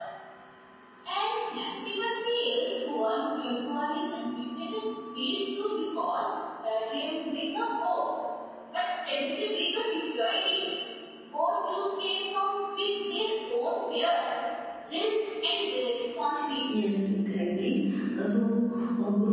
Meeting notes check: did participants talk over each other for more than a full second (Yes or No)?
No